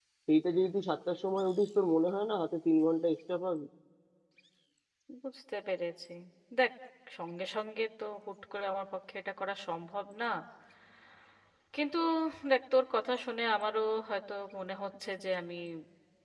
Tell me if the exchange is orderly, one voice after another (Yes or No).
Yes